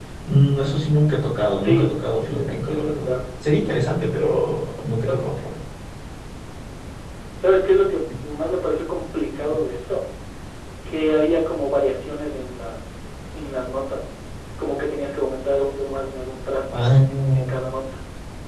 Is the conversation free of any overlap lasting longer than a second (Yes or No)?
No